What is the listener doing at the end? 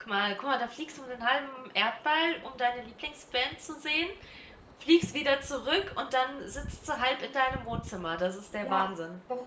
taking over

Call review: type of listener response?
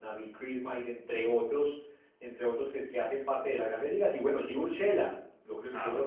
listening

